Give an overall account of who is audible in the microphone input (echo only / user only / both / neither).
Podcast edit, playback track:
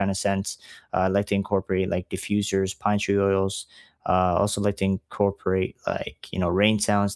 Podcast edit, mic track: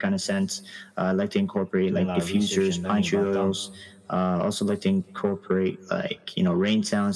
both